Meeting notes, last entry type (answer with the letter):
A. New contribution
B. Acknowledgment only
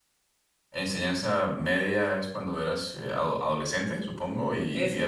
A